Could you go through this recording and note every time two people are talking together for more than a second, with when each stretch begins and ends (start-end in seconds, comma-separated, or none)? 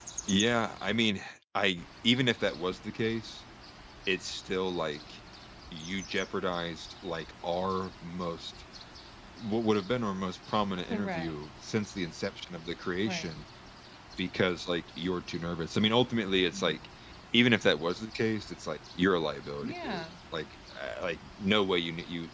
none